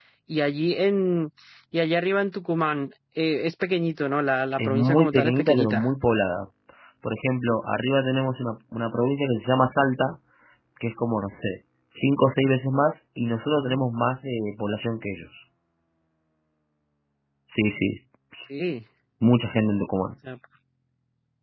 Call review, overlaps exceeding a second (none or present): present